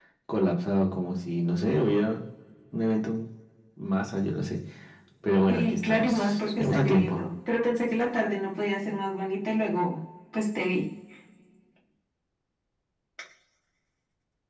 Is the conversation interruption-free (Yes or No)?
No